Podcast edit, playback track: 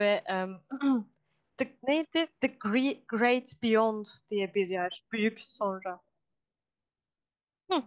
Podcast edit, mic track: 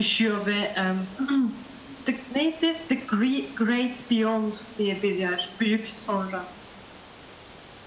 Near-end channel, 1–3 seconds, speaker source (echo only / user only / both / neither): echo only